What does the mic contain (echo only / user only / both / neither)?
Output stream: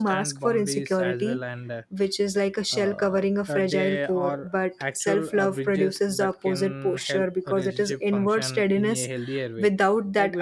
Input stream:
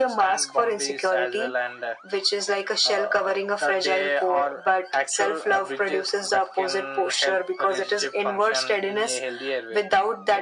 echo only